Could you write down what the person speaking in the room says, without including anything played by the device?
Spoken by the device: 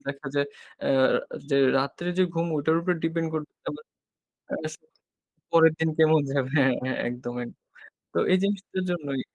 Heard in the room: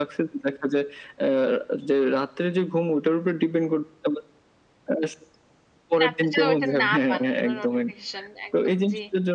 মানে আপনি যে ঐটা না পান। কোনো নোটিফিকেশন একদম জি।

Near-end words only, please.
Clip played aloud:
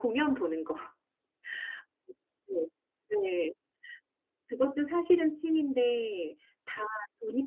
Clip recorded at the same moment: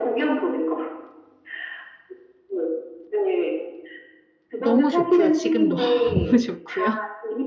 너무 좋고요. 지금 너무 좋고요.

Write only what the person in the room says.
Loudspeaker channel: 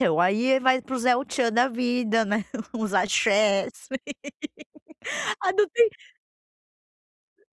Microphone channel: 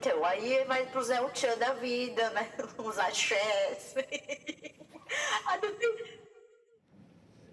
none

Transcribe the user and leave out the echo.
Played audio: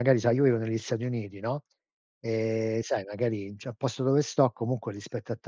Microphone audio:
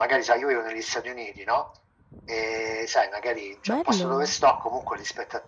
Bello.

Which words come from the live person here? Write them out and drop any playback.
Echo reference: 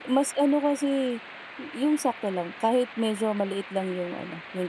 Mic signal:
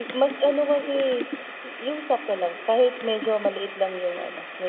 none

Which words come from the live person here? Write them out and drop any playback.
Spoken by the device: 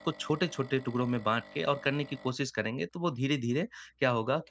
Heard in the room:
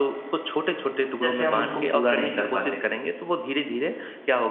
से हम उसको पूरा नहीं कर पाते हैं,

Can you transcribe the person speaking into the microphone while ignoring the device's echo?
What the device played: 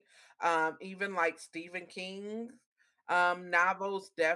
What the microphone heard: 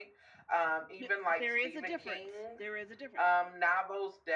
The there is a difference, there is a difference.

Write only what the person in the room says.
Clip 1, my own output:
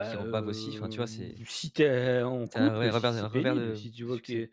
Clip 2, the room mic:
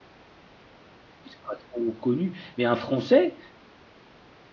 ils sont pas trop connus, mais un Français

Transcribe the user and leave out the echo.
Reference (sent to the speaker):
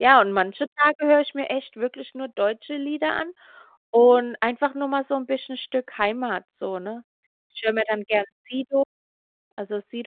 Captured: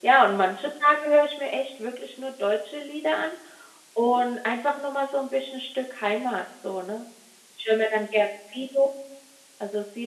none

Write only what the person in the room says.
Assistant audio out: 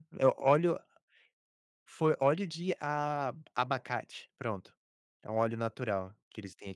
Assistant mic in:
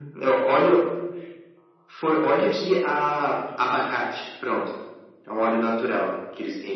none

